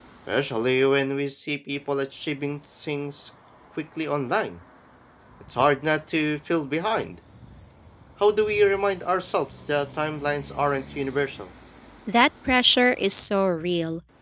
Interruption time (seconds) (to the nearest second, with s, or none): none